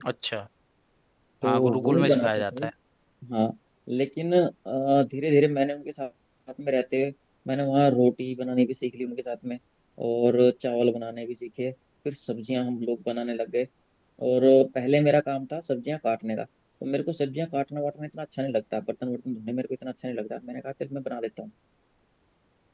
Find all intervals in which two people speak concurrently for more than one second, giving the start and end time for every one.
1.4-2.6

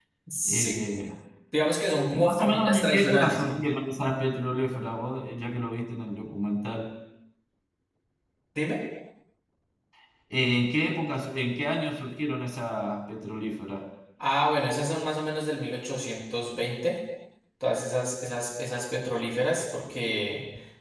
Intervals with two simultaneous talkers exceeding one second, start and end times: 2.1-3.4

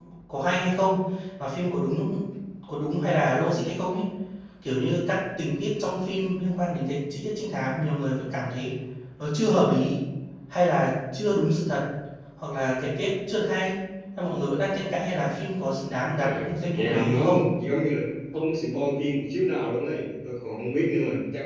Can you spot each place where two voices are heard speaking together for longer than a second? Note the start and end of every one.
16.2-17.4

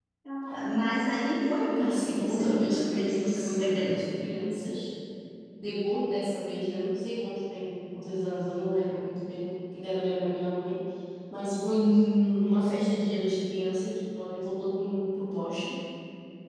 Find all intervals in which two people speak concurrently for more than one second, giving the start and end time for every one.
1.8-4.0

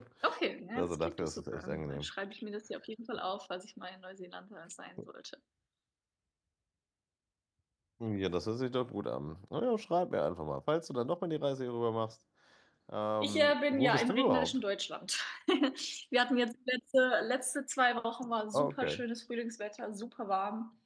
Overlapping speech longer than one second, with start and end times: 0.8-2.1, 13.2-14.6

